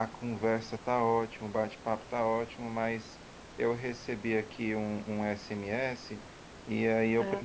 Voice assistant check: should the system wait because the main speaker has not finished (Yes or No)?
Yes